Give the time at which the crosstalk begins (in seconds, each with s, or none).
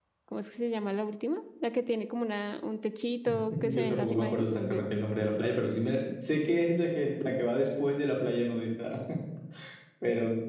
3.2 s